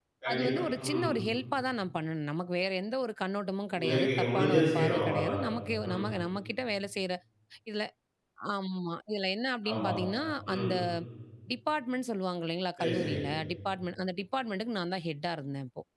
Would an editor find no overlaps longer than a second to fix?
No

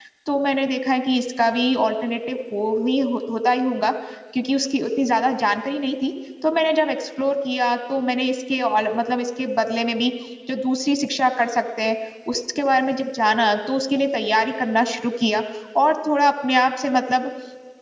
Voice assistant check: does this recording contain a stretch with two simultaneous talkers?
No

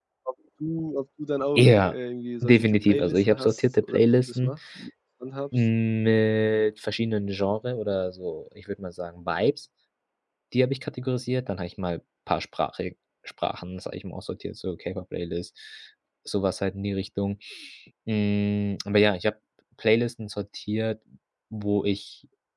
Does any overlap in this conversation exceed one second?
Yes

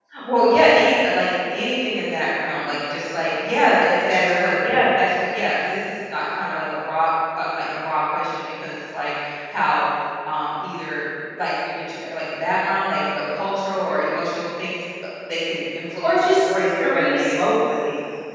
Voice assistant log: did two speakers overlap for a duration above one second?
Yes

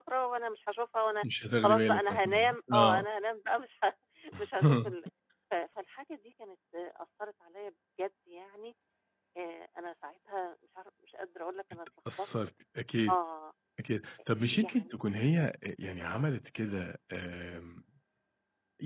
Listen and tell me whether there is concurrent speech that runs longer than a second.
Yes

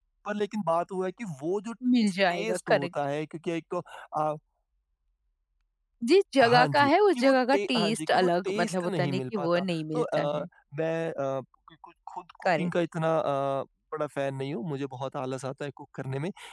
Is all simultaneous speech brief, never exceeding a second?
No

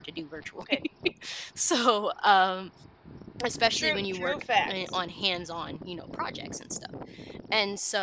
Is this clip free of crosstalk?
No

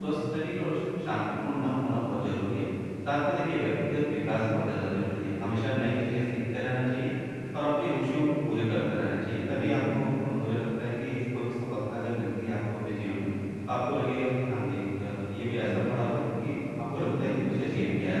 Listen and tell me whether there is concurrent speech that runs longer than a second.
Yes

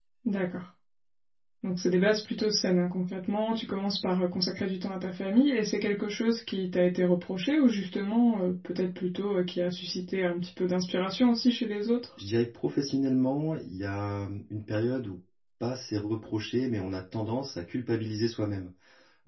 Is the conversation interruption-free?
Yes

